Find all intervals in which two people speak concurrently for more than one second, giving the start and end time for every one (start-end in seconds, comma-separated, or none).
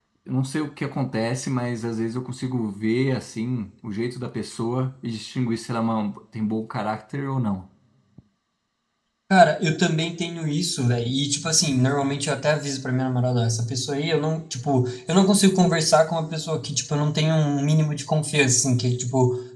none